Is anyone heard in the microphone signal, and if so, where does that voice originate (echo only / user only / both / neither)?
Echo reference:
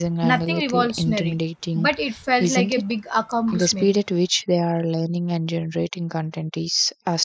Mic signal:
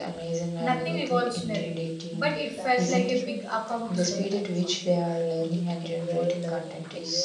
both